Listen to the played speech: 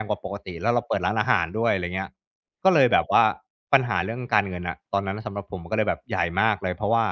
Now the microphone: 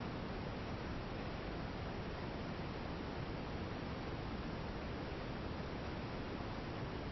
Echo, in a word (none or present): none